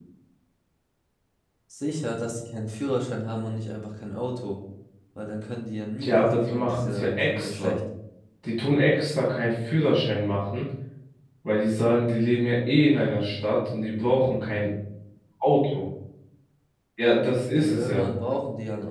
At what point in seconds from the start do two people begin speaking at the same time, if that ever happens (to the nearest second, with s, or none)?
6 s